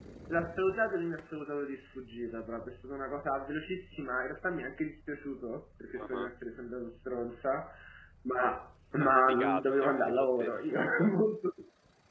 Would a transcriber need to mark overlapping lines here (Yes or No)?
Yes